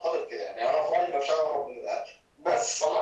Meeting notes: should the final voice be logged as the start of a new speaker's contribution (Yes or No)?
Yes